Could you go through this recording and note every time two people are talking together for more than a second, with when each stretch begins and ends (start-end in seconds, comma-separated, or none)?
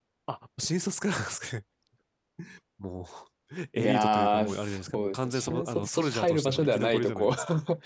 3.8-7.3